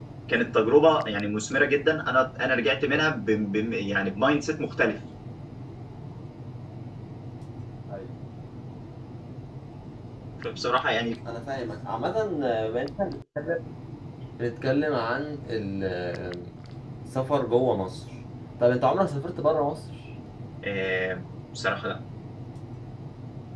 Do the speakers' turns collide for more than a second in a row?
No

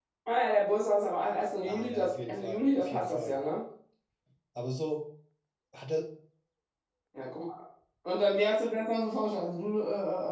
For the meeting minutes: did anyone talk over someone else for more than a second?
Yes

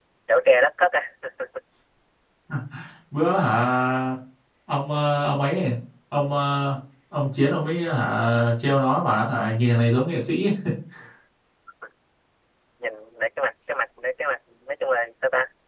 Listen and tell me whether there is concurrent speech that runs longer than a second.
No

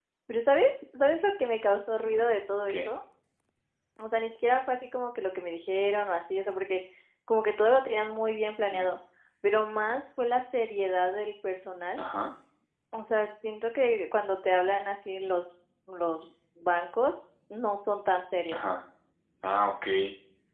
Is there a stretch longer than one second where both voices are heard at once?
No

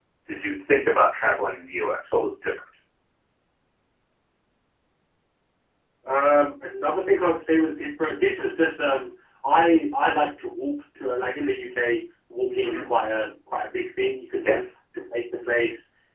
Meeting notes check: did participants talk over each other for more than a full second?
No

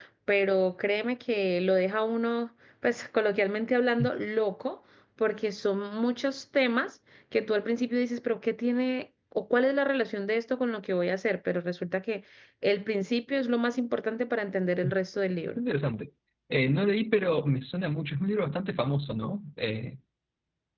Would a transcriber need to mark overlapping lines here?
No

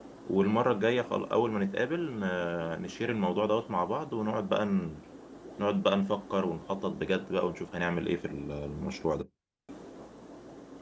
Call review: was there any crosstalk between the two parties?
No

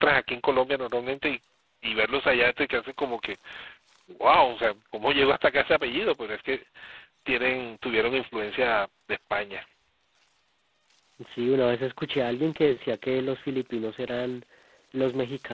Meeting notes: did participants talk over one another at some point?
No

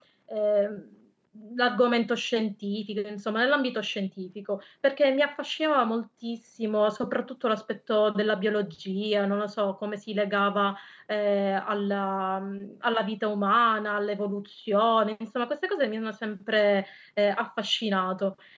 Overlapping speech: No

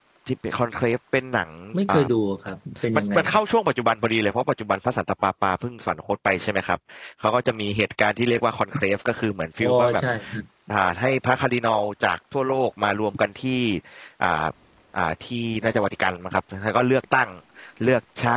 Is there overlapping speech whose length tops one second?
No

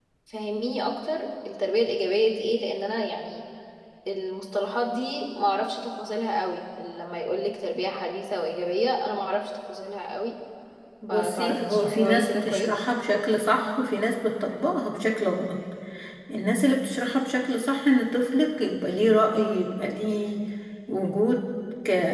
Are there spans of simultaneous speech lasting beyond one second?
Yes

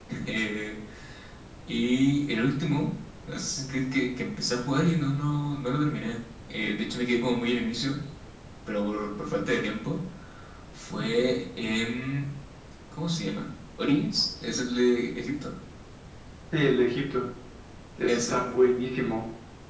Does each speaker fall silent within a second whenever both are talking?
Yes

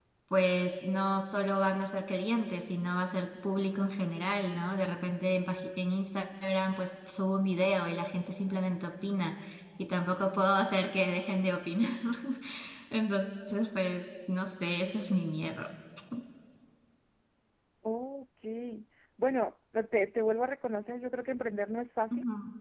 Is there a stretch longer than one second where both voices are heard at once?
No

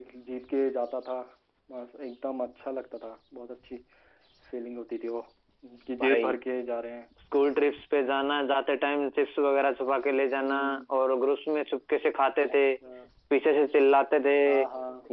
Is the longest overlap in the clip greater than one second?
No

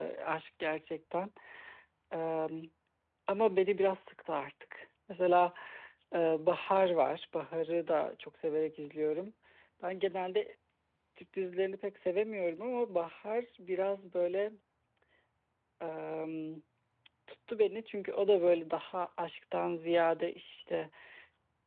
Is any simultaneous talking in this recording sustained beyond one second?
No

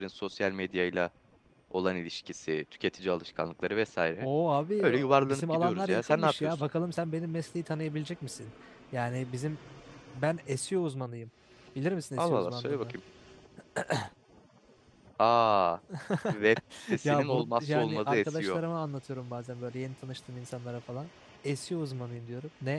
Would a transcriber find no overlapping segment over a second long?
No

